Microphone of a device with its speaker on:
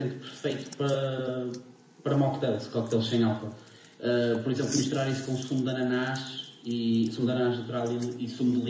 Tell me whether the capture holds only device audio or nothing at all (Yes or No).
Yes